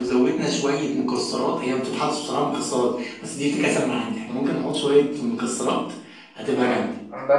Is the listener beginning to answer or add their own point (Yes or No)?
Yes